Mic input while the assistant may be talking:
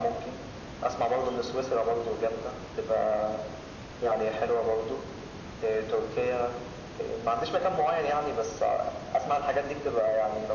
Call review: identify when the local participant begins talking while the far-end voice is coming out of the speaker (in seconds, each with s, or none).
none